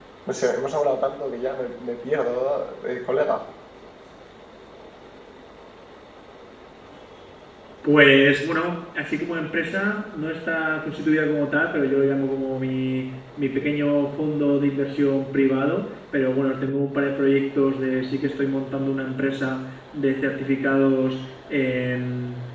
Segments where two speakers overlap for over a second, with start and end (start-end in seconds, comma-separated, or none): none